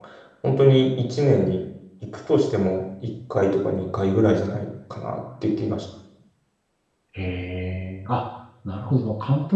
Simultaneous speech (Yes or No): No